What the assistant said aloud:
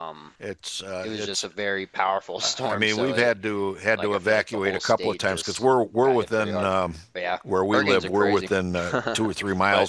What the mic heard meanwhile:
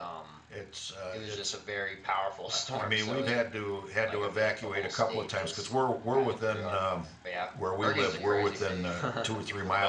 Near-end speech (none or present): present